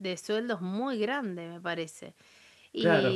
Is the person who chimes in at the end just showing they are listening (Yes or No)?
No